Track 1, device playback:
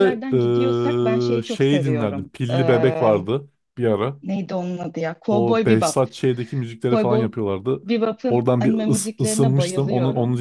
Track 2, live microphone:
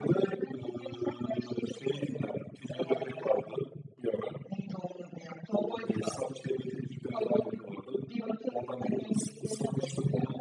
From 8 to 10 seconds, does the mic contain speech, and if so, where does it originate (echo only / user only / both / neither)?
echo only